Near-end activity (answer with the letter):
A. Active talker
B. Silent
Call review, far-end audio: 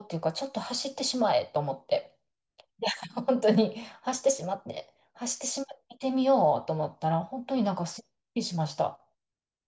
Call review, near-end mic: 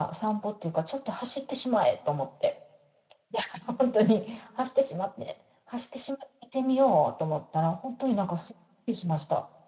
B